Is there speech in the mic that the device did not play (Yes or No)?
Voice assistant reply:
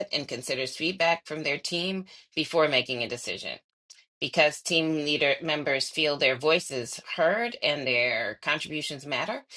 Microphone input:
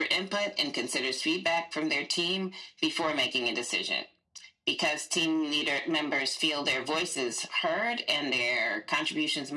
No